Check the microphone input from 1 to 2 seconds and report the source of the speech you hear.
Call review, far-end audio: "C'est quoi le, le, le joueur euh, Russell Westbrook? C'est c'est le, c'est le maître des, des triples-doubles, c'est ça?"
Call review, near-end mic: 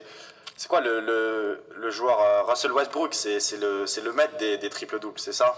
echo only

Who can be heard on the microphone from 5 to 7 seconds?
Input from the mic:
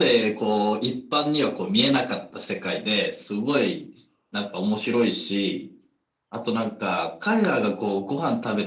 echo only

